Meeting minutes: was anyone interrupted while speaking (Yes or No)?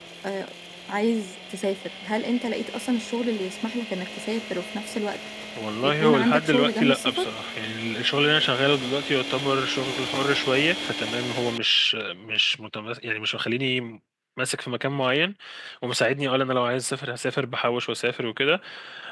Yes